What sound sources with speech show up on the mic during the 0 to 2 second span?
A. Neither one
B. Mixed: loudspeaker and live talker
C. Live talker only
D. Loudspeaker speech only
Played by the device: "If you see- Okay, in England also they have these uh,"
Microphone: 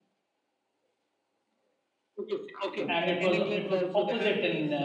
A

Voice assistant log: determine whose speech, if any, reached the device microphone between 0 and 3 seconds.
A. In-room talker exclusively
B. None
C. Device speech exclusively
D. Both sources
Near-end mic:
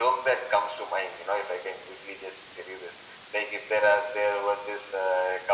C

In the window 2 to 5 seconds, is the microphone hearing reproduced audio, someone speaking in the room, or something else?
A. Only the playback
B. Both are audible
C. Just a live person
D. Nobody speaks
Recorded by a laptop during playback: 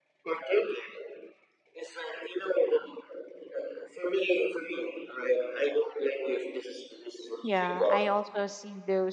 A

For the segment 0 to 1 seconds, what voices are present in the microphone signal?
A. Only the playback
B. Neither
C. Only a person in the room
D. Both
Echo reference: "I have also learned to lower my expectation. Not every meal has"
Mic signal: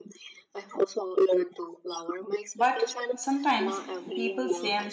A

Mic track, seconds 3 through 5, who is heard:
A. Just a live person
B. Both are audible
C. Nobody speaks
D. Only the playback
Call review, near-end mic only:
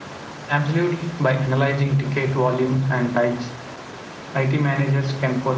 D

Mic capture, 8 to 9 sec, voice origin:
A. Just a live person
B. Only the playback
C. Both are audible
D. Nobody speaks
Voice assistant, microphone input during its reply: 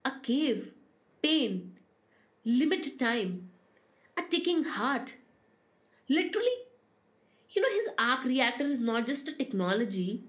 A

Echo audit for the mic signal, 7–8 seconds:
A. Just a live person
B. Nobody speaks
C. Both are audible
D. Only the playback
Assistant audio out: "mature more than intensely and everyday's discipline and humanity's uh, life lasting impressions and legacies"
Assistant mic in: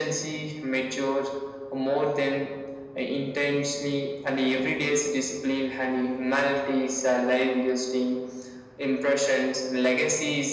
D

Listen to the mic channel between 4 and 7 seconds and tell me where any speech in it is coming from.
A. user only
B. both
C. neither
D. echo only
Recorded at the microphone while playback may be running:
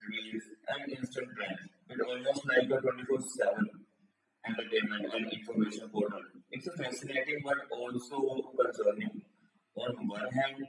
D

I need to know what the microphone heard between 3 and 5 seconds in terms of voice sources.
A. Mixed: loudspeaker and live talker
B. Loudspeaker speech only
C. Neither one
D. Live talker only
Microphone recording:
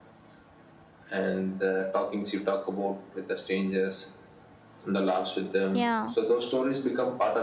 B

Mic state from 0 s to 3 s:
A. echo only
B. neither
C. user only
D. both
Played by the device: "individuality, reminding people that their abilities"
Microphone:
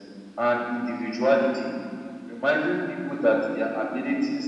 A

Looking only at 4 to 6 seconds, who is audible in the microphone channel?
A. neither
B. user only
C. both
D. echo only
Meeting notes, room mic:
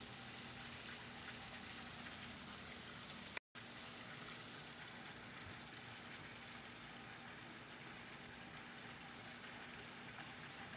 A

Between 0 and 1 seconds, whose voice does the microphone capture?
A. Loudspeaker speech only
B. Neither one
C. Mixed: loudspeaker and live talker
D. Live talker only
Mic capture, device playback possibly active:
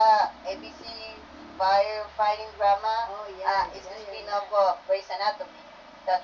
A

